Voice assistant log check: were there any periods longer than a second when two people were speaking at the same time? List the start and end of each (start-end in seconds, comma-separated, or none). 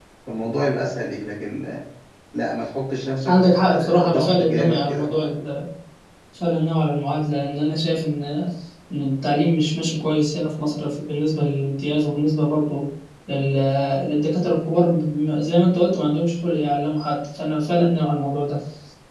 3.3-5.2